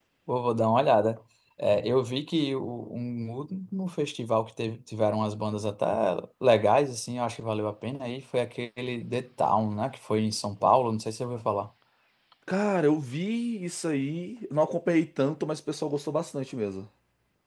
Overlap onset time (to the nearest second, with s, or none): none